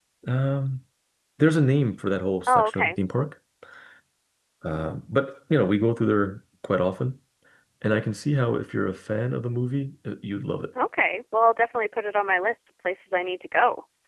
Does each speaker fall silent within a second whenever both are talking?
Yes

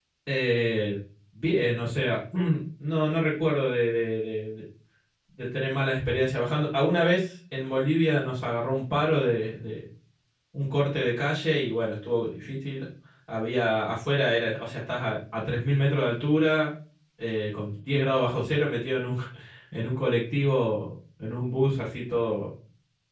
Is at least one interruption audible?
No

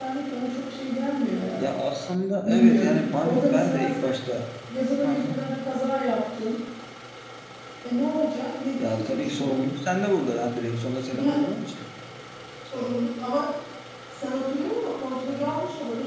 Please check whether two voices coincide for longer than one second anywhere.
Yes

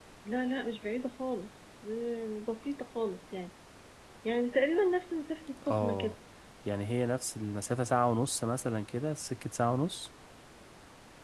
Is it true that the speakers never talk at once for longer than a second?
Yes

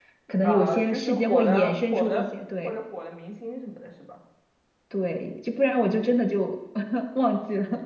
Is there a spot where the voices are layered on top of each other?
Yes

